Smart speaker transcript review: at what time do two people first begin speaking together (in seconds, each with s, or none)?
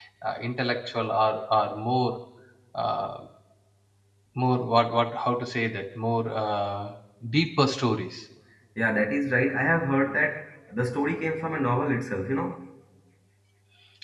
none